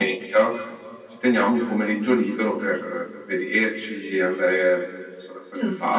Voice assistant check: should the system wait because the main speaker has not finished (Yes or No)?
No